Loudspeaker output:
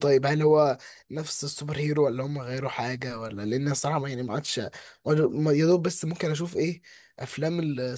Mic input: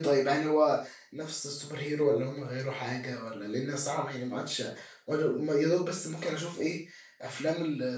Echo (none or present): present